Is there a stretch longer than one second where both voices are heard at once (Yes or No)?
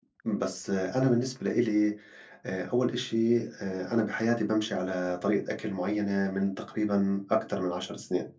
No